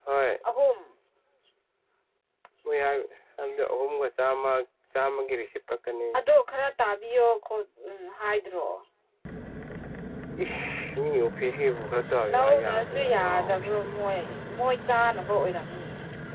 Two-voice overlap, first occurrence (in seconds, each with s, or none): 12.2 s